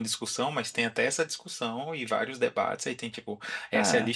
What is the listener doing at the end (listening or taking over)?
listening